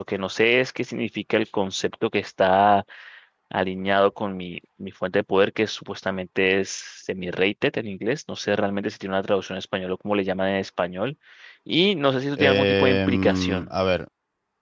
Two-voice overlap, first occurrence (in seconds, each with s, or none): 12.4 s